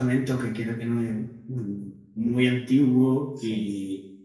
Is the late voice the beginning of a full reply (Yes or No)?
No